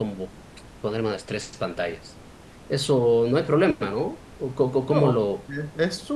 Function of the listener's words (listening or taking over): taking over